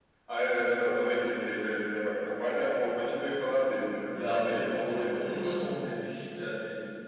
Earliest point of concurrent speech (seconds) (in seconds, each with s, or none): 4.1 s